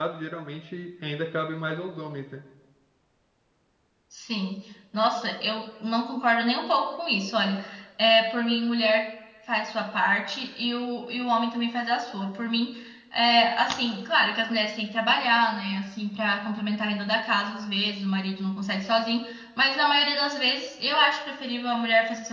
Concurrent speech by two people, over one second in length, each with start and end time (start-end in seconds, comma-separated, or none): none